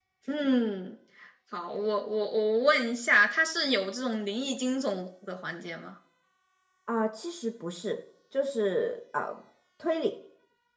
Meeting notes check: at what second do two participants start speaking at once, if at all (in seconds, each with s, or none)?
none